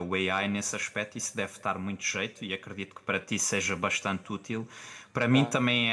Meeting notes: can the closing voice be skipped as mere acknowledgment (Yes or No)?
Yes